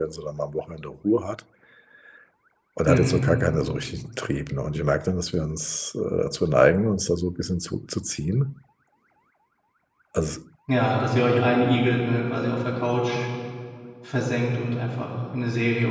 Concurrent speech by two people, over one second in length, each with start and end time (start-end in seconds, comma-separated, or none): none